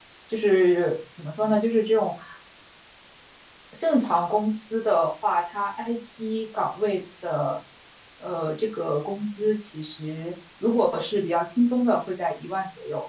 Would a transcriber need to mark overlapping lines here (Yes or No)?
No